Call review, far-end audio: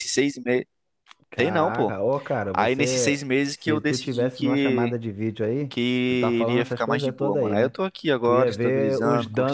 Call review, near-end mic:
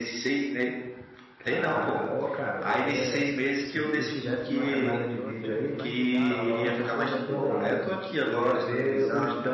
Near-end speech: present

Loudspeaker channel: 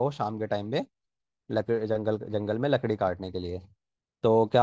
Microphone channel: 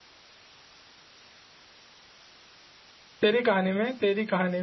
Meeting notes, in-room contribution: present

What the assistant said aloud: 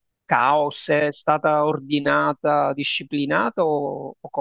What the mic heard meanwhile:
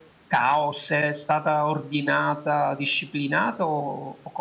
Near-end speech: none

